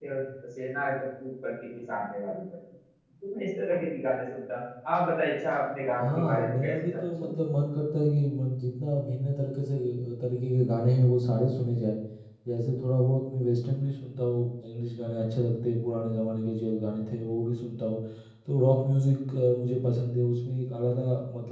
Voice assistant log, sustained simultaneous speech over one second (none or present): present